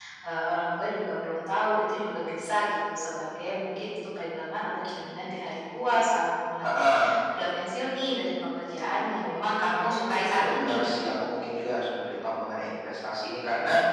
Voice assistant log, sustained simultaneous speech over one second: present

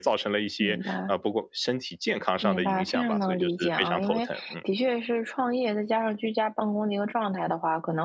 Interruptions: present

